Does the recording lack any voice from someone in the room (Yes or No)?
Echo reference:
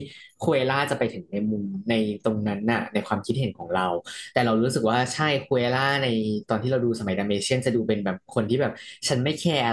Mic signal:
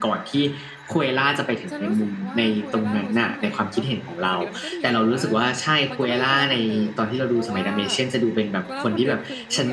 No